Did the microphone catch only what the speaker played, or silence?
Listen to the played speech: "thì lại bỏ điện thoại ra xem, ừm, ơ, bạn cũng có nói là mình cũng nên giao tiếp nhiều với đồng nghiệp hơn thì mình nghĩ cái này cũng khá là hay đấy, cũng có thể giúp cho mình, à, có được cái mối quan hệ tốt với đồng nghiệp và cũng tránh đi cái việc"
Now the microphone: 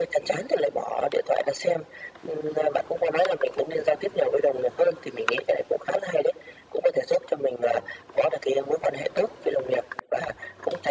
Yes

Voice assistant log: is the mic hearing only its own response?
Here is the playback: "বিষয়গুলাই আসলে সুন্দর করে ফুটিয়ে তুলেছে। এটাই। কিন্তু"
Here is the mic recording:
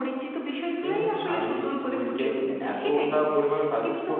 No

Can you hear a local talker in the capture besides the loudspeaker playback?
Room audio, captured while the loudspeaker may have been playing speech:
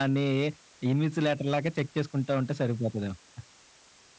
Yes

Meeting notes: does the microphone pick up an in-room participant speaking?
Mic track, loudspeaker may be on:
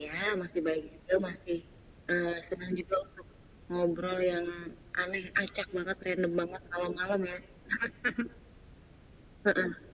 No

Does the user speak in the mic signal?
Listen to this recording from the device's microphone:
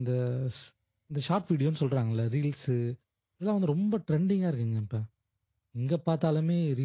Yes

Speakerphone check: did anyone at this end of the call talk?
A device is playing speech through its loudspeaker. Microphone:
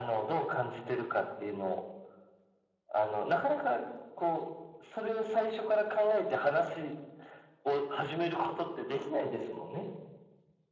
No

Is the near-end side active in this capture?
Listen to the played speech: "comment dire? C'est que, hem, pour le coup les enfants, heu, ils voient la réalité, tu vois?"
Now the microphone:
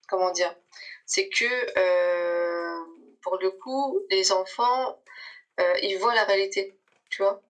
No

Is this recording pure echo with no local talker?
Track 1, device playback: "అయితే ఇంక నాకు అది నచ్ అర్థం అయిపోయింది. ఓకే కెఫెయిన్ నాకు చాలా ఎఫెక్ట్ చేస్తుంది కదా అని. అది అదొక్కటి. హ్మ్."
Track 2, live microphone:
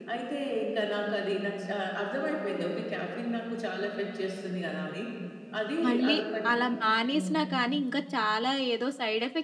No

